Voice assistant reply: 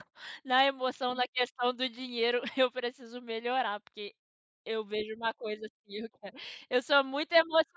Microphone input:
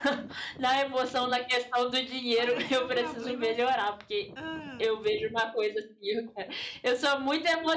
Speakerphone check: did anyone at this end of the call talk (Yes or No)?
Yes